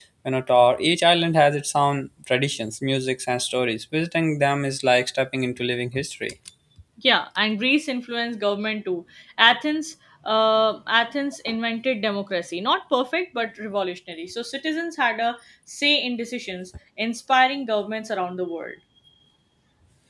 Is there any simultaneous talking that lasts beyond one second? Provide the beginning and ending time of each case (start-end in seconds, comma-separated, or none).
none